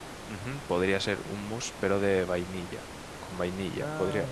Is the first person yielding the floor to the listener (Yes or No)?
No